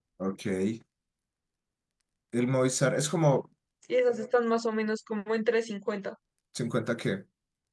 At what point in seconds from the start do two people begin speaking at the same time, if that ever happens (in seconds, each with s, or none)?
none